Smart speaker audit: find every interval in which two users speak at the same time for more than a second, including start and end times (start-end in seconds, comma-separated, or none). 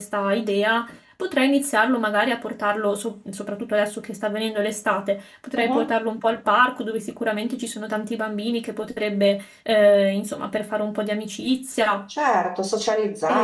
none